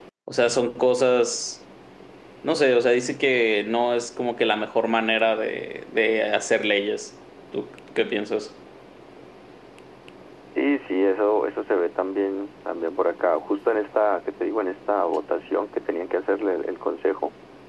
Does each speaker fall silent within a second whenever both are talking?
Yes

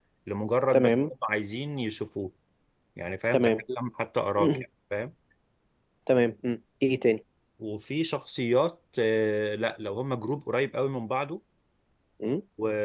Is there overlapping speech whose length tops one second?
No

